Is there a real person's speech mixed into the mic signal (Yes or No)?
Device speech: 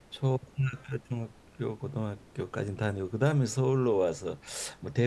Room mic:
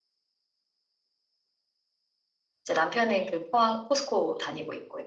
Yes